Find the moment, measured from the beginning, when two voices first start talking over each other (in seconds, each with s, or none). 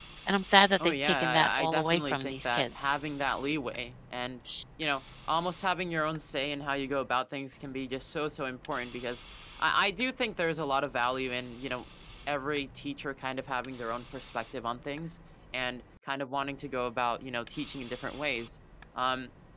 0.8 s